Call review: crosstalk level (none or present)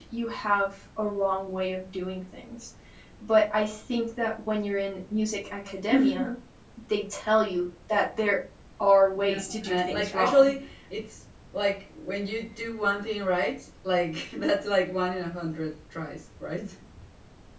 present